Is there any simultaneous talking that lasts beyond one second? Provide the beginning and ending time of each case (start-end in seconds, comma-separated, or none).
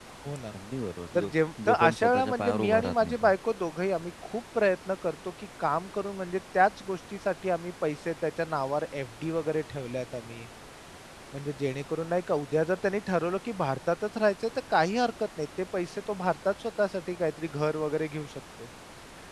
1.7-3.3